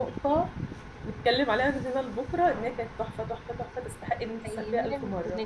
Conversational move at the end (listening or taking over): taking over